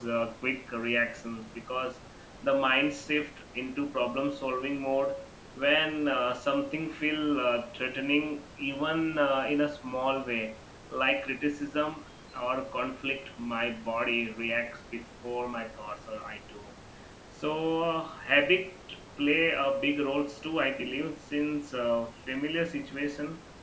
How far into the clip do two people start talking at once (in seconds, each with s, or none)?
none